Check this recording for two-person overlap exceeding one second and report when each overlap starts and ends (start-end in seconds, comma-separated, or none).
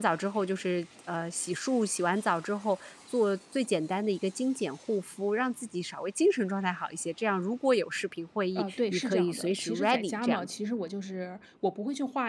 8.6-10.4